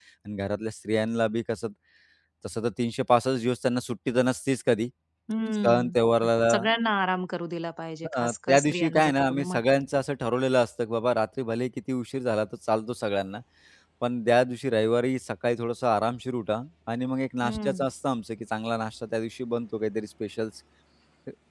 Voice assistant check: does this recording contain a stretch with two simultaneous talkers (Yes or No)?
Yes